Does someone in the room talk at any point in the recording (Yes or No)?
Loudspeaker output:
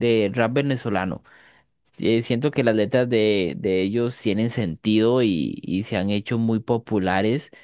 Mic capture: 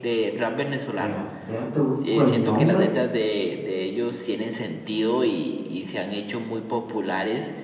Yes